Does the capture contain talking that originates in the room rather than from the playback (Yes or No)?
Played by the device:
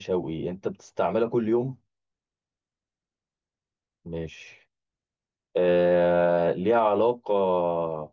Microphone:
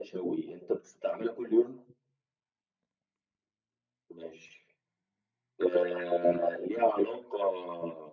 No